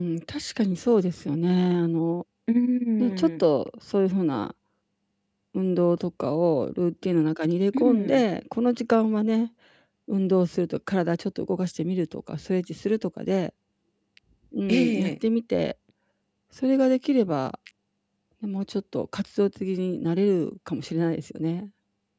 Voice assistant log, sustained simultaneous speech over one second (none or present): none